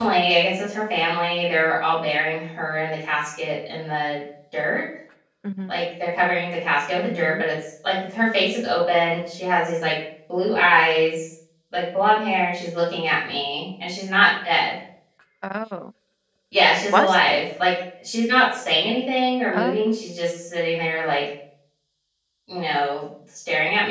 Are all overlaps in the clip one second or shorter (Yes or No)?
Yes